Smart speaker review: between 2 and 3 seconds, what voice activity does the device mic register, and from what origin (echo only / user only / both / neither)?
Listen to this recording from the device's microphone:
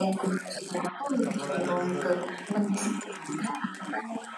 both